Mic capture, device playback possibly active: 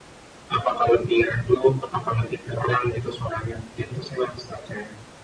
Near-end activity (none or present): none